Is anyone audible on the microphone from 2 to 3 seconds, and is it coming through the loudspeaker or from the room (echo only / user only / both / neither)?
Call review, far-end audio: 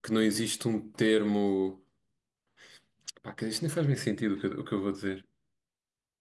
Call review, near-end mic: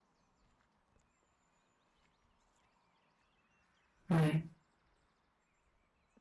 neither